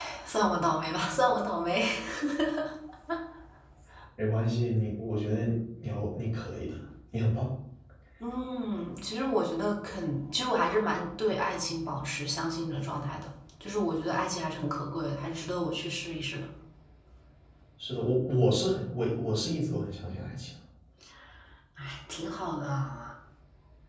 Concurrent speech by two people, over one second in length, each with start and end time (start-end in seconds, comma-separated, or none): none